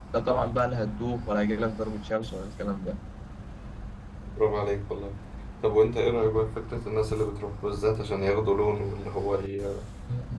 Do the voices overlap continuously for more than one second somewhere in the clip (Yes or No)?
No